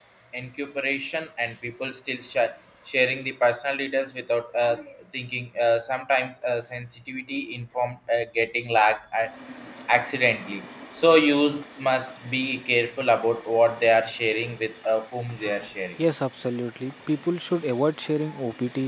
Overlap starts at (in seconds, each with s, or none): none